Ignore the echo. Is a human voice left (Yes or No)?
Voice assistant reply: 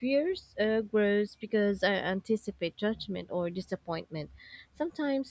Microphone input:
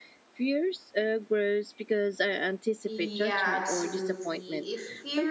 Yes